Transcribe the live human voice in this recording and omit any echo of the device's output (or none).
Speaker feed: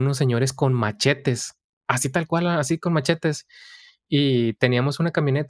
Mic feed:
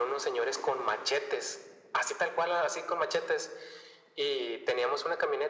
none